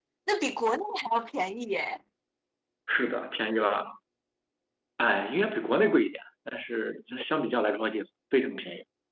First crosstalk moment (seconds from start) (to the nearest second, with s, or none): none